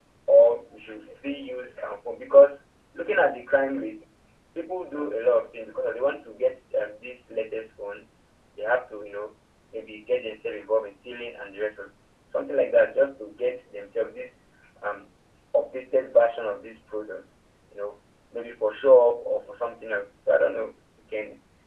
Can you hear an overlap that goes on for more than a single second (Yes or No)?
No